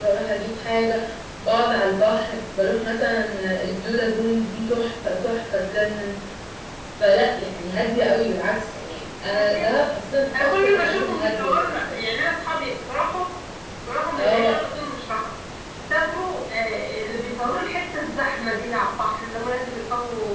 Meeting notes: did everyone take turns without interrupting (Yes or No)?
No